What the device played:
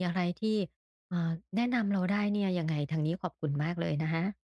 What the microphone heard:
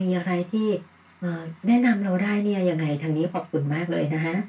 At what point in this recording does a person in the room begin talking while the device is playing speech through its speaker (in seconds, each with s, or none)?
none